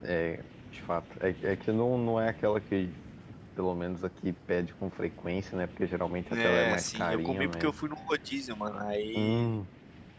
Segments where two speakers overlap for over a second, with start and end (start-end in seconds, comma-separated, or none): 6.3-7.7